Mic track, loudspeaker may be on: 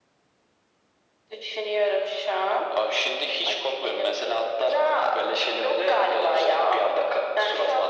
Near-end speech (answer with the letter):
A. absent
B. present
A